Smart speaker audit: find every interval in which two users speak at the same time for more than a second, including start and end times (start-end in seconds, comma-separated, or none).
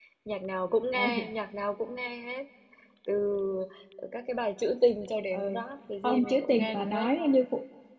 6.0-7.3